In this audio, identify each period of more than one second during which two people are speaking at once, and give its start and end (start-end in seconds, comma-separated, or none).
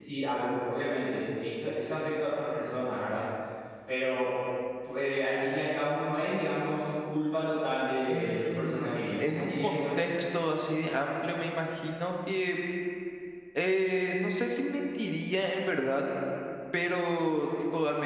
8.1-9.8